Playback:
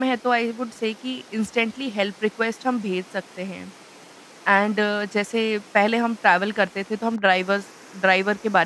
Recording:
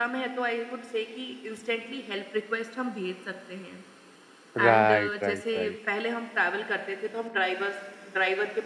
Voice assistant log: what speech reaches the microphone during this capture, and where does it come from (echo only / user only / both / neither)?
both